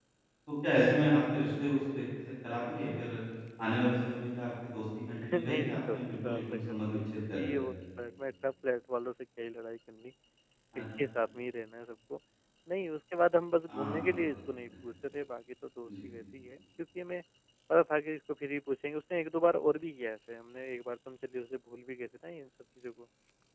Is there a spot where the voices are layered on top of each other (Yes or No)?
Yes